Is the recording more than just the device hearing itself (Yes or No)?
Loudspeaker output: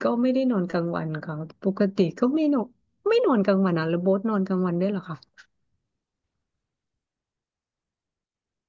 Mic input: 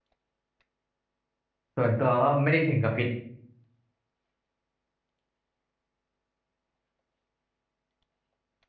Yes